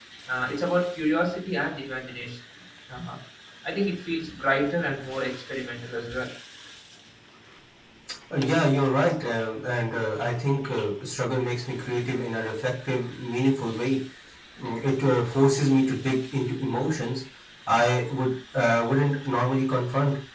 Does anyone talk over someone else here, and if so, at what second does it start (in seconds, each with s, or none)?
none